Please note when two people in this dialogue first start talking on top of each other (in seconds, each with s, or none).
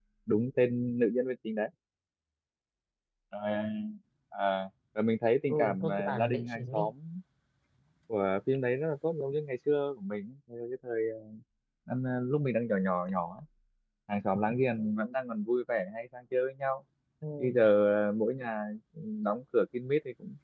5.5 s